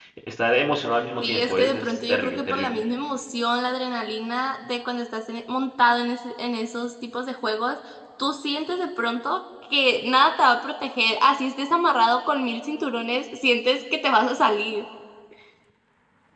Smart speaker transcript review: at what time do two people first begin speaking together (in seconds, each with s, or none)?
1.2 s